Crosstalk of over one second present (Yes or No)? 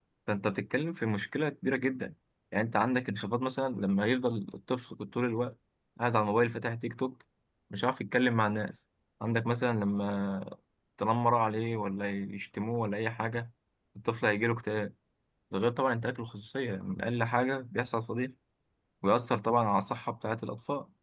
No